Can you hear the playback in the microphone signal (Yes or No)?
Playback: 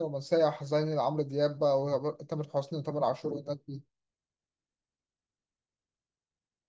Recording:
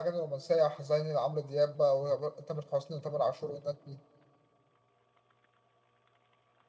Yes